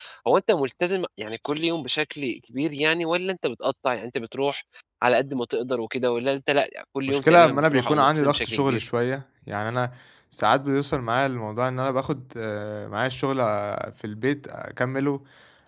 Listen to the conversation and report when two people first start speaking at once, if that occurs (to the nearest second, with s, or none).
7 s